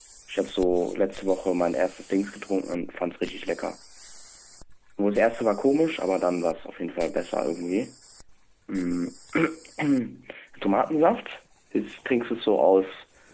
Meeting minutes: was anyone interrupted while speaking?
No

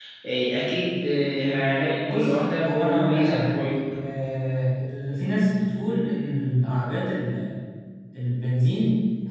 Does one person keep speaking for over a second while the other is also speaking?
Yes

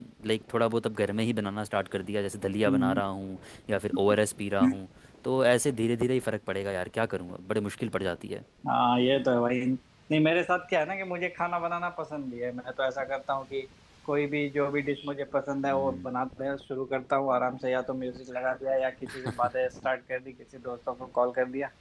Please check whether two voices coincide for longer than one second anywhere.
No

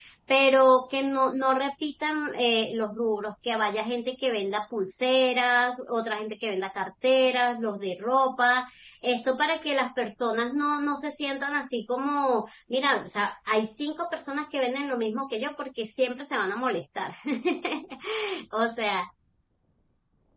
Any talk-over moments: No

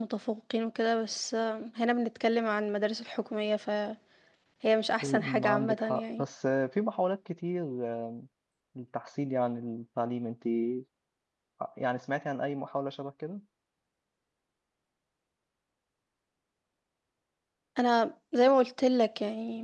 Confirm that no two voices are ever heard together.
No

